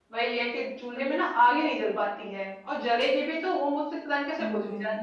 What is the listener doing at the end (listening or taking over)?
listening